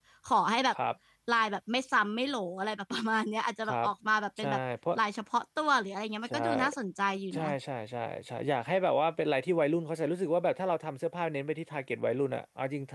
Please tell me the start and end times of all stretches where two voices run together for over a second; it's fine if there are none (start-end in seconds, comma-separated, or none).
none